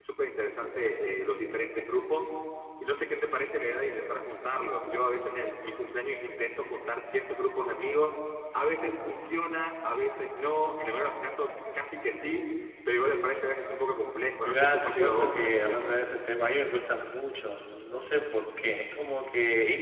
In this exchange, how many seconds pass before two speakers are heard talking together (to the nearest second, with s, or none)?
14 s